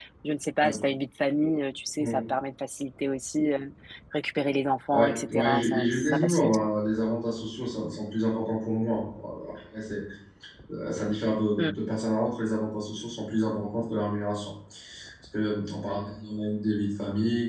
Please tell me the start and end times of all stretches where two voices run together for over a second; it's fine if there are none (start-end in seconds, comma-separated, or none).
4.9-6.7